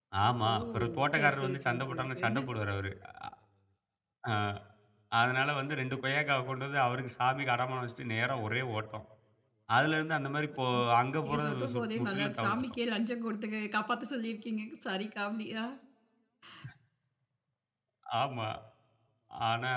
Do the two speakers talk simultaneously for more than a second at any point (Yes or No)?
Yes